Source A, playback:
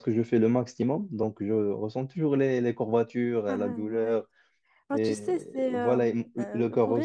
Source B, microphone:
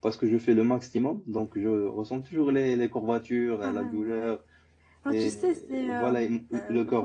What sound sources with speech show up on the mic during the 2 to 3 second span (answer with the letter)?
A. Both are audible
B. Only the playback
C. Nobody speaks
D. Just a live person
B